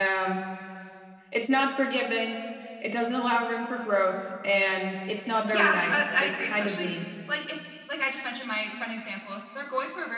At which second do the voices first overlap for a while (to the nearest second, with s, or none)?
5 s